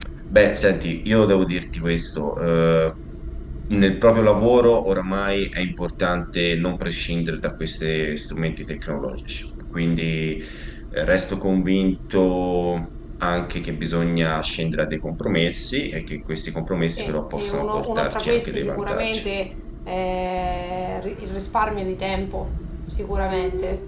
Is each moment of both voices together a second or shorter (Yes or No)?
No